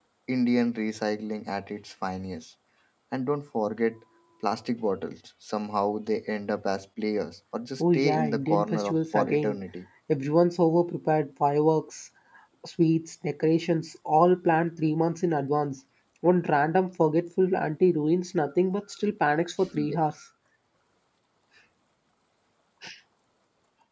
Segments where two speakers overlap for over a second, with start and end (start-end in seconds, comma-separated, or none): 7.8-9.6